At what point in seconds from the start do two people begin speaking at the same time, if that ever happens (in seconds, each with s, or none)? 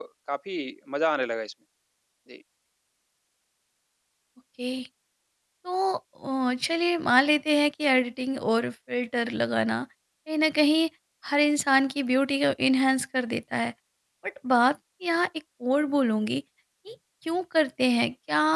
none